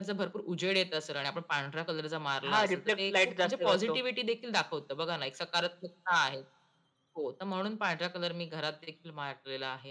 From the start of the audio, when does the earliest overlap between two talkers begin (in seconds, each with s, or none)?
2.4 s